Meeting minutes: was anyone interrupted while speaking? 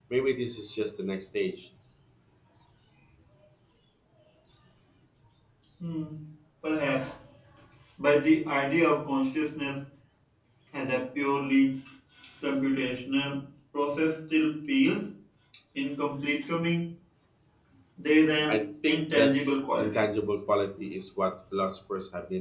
Yes, from 18.5 s

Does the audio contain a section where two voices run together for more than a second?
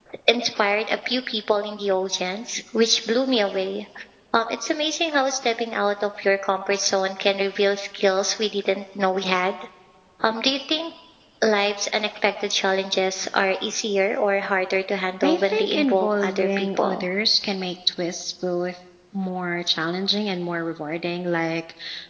Yes, from 15.2 s

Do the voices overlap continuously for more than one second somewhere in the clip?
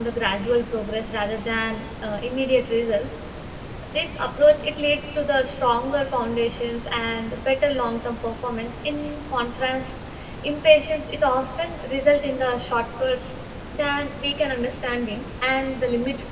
No

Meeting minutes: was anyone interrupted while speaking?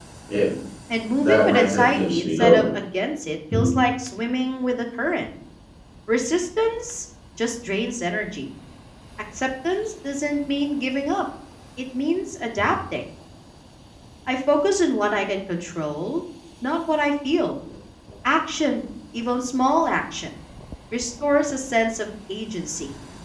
Yes, from 1.2 s

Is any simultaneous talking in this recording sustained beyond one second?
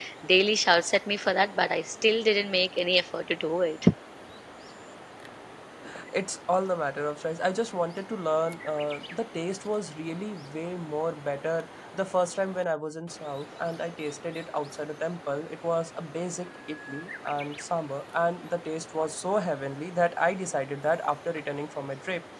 No

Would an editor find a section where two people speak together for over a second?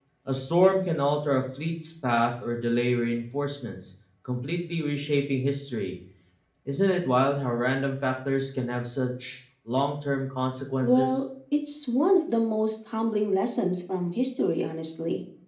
No

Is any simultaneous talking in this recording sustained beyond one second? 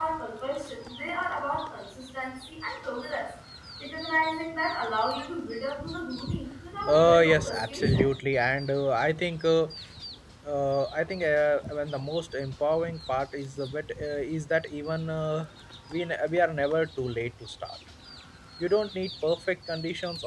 Yes, from 6.9 s

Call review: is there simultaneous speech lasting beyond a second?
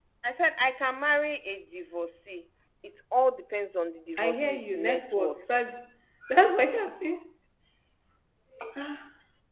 Yes, from 4.1 s

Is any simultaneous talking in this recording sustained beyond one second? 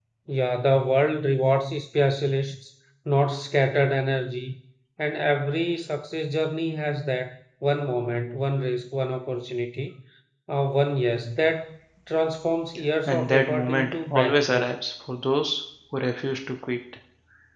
Yes, from 13.1 s

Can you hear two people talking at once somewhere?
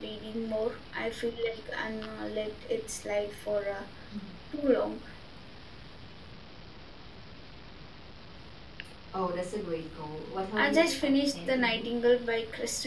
Yes, from 10.6 s

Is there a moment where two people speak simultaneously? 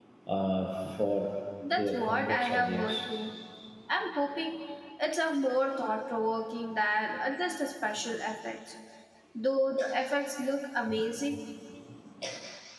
Yes, from 1.7 s

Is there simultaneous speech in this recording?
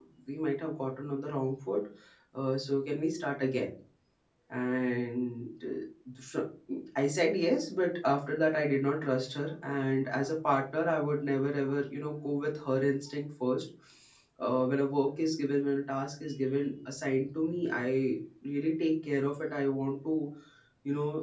No

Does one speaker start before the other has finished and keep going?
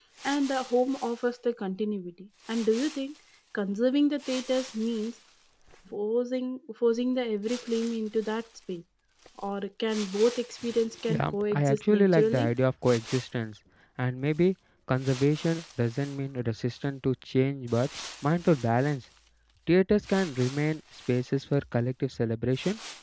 Yes, from 11.1 s

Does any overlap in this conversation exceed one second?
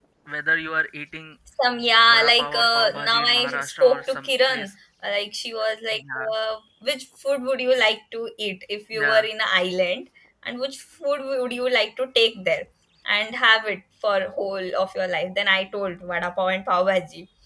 Yes, from 2.1 s

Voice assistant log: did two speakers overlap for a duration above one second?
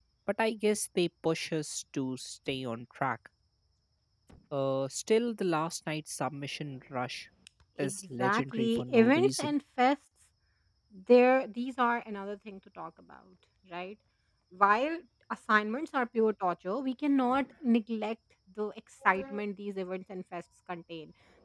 Yes, from 7.8 s

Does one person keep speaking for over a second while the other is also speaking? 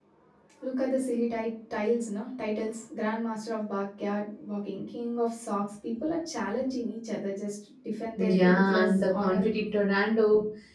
Yes, from 8.2 s

